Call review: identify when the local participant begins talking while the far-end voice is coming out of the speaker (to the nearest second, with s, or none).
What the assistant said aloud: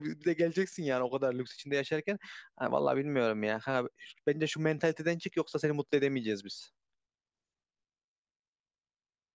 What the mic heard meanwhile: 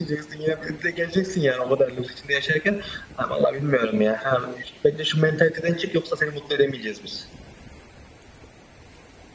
none